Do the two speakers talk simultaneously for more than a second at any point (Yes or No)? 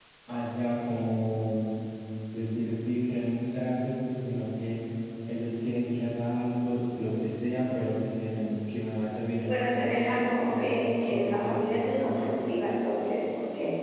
Yes